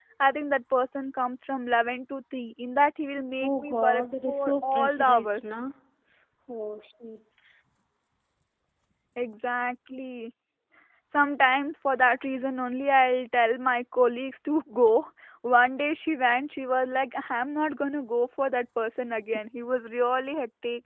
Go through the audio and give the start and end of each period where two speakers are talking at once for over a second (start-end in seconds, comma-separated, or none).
3.4-5.5